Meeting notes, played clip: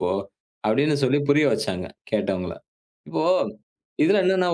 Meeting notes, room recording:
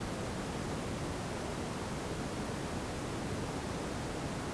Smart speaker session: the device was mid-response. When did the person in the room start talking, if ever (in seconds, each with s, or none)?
none